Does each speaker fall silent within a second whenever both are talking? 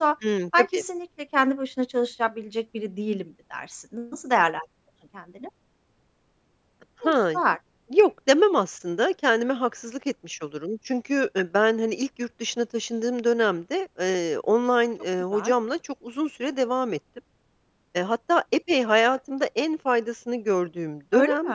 Yes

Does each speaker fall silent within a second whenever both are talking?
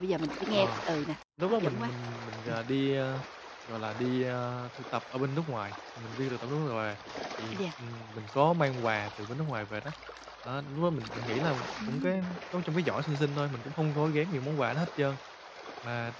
Yes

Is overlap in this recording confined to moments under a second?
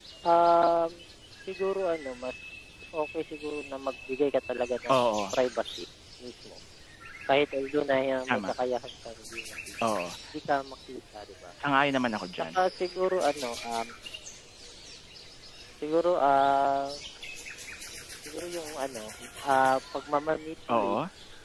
Yes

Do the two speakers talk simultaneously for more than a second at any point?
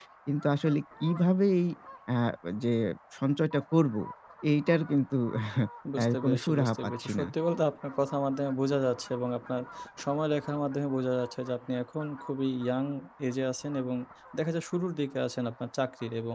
Yes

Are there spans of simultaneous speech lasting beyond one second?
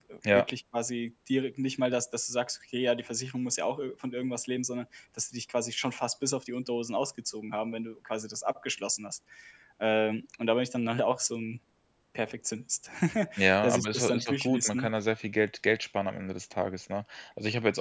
Yes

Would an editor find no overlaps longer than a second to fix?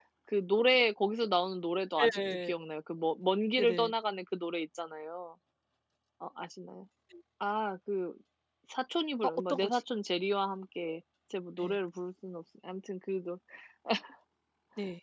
Yes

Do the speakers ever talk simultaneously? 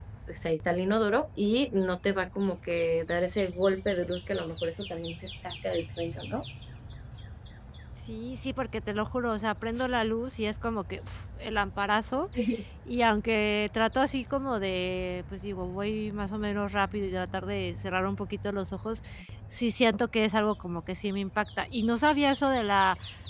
No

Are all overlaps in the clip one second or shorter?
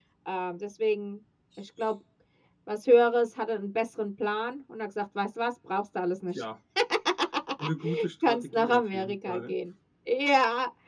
No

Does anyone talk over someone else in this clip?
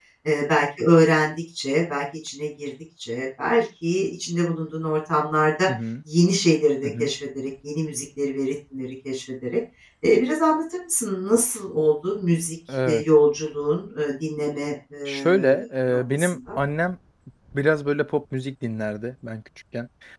Yes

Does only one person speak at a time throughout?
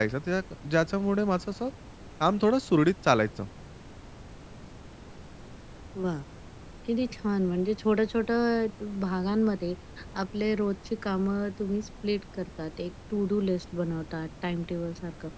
Yes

